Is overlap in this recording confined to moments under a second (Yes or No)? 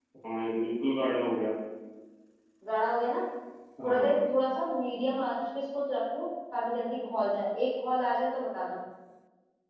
Yes